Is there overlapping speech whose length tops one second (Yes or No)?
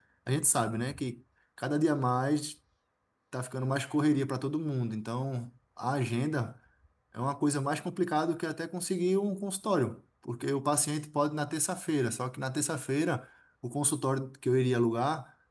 No